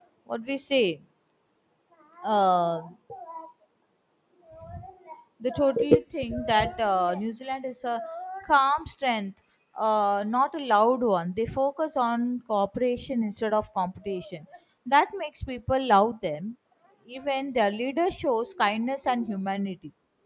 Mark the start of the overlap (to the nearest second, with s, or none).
none